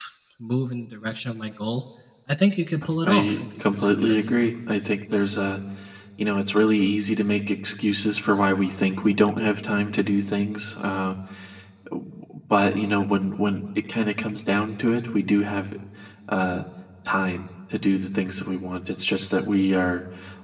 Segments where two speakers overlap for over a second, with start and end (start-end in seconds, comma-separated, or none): 3.0-4.4